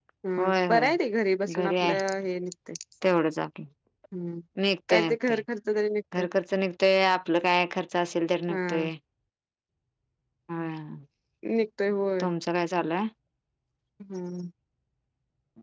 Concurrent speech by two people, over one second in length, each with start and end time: none

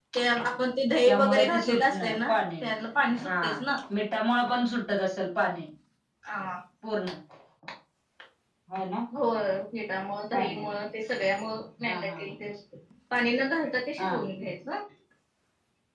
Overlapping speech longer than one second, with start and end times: 1.1-2.4

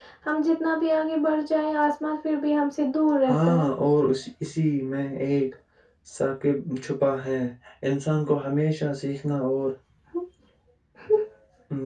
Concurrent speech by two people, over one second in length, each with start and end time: none

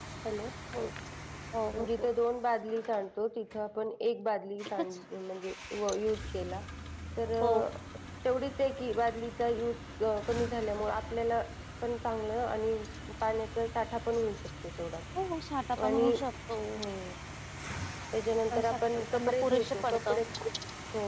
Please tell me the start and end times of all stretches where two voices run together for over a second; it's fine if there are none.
18.5-20.2

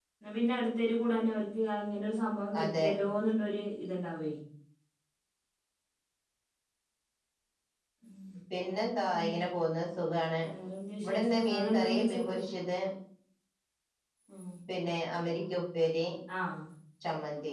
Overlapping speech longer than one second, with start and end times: 11.0-12.3

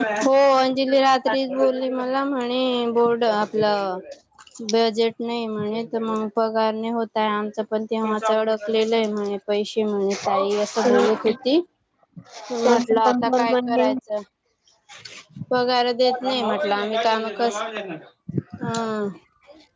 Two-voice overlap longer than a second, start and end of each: 12.6-13.9

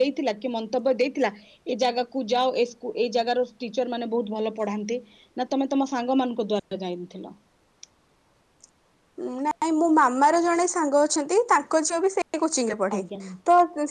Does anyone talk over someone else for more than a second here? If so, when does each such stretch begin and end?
none

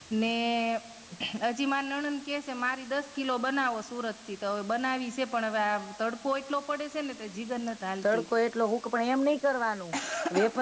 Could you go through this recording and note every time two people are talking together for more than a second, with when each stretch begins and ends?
none

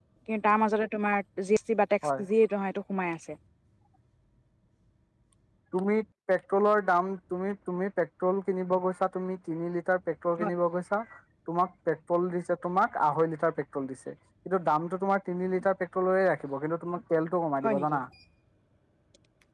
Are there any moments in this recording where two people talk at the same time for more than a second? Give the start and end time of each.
none

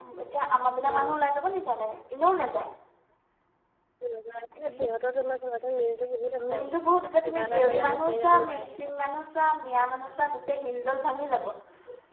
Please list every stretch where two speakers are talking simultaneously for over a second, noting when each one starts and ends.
7.2-8.9

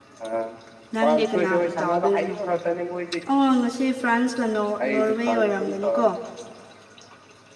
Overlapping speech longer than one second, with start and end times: 1.0-2.3, 4.8-6.0

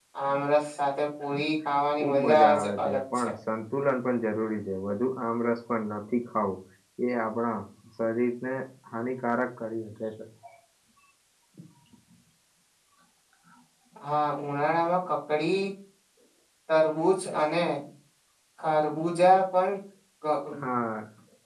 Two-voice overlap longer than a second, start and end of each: 1.9-3.3

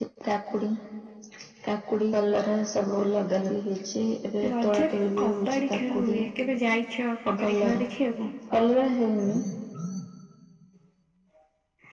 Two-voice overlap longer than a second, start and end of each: 4.5-6.2

